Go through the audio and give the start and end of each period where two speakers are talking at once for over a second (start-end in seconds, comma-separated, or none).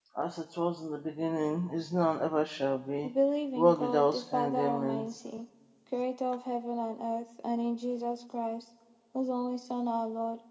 3.5-5.1